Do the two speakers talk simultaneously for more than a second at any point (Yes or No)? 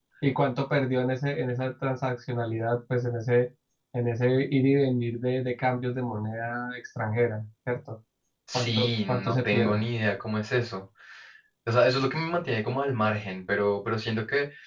Yes